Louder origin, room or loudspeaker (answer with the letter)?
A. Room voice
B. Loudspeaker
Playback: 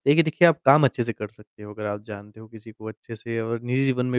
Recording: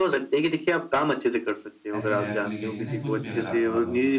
B